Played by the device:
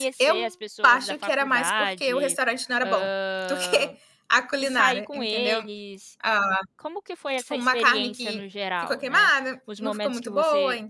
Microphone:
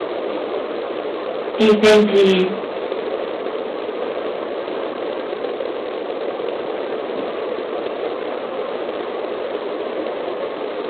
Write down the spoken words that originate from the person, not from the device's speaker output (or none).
Entendi.